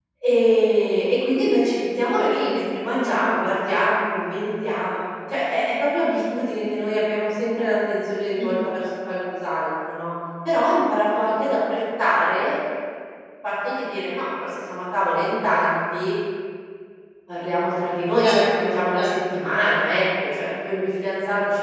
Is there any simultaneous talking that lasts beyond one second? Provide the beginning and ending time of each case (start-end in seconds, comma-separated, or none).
18.2-19.4